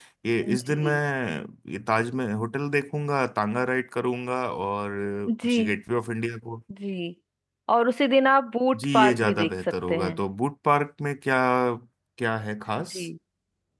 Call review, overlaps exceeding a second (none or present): present